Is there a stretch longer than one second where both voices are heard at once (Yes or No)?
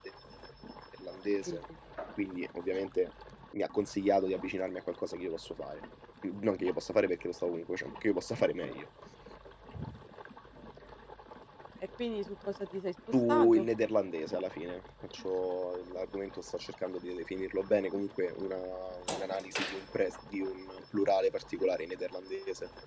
No